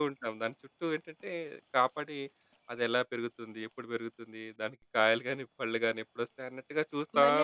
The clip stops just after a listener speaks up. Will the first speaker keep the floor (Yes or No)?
No